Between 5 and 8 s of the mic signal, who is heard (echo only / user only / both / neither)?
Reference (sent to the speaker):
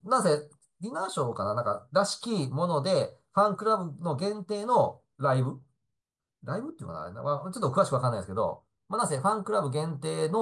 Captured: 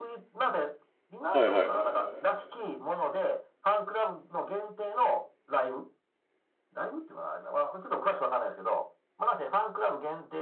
echo only